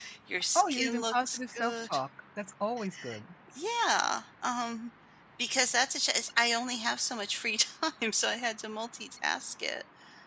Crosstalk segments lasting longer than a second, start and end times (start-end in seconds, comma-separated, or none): 0.6-2.0